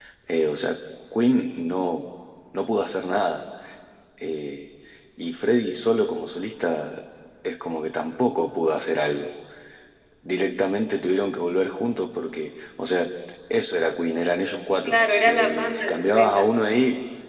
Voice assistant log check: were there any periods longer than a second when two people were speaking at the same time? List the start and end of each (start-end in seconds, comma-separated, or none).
14.8-16.5